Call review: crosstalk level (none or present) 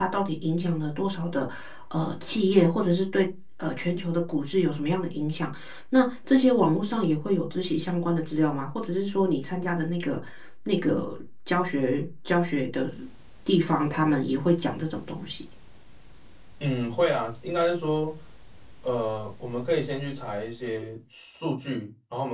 none